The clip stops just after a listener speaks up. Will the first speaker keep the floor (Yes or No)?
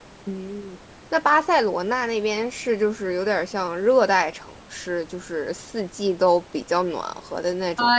No